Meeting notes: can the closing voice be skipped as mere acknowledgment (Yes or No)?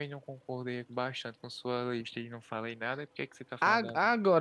No